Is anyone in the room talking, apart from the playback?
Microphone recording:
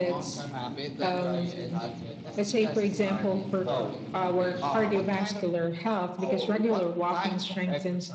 Yes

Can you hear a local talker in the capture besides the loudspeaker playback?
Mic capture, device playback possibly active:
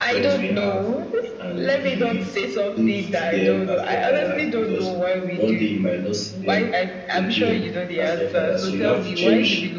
Yes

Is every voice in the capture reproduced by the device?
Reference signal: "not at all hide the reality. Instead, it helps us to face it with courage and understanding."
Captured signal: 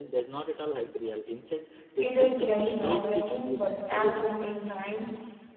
No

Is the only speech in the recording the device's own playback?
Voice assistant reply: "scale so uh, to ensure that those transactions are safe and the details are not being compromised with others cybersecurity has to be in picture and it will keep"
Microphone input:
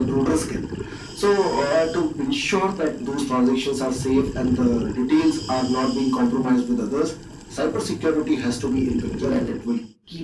Yes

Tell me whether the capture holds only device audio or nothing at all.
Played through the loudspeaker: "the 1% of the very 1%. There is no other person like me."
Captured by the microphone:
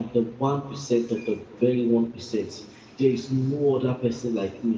Yes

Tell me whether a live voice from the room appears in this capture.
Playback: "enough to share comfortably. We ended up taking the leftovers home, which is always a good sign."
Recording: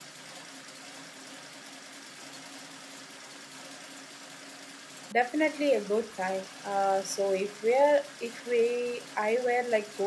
Yes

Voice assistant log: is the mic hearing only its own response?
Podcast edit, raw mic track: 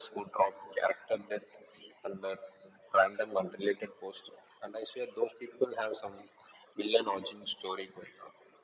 Yes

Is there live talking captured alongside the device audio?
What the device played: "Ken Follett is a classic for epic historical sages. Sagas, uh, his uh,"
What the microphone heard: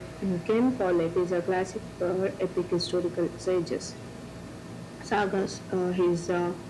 No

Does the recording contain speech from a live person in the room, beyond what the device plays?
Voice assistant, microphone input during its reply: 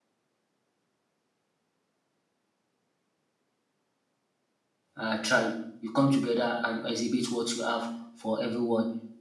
Yes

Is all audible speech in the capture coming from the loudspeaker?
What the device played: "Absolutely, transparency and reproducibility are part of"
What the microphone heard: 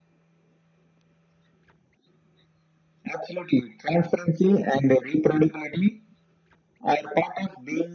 Yes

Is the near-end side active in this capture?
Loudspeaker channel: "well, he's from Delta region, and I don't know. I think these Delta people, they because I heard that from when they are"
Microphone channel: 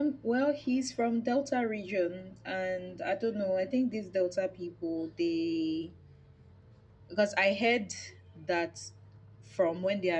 No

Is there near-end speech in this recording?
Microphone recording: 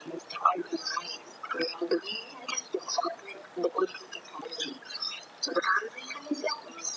No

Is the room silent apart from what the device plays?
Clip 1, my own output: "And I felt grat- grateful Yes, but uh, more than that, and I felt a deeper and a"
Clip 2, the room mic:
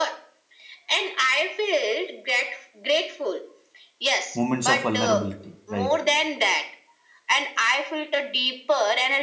No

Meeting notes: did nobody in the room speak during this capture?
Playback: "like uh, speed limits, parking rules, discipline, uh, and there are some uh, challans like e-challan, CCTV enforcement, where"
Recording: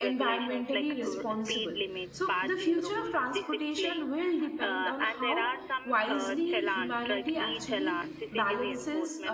No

